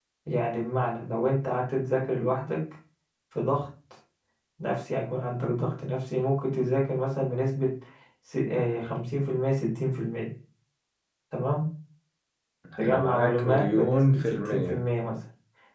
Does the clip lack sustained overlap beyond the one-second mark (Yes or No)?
No